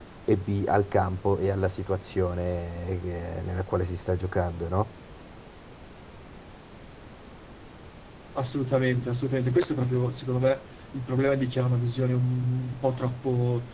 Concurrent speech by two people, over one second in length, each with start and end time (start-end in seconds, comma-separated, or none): none